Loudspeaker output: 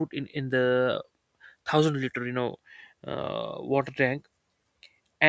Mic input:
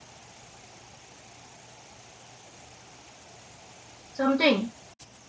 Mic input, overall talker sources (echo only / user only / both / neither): user only